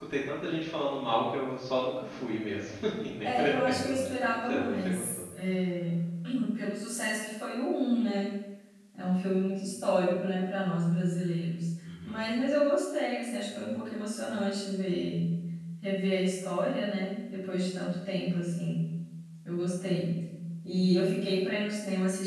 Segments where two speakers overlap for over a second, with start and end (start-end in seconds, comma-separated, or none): 3.2-5.2